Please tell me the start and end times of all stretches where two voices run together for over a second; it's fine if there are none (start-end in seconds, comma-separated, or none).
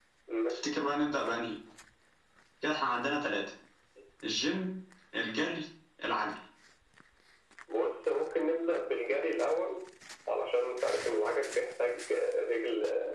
none